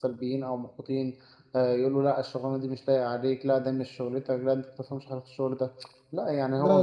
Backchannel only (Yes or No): Yes